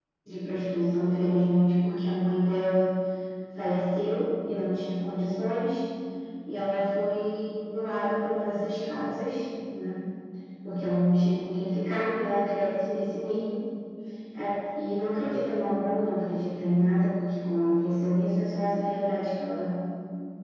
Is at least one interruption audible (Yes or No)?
No